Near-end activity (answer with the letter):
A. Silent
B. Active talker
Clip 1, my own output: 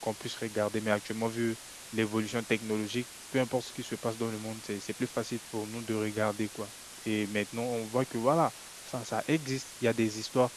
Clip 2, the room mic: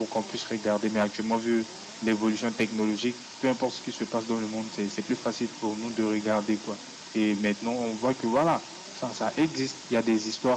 A